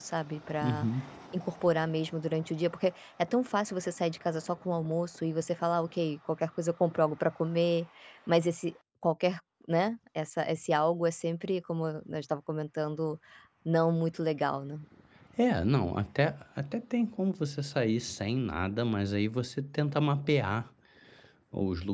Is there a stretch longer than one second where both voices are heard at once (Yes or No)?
No